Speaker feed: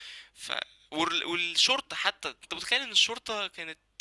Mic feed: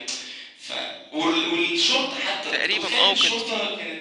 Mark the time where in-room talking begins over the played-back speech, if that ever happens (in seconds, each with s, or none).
2.5 s